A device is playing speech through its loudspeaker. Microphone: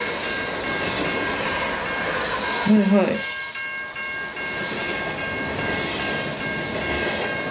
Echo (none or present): none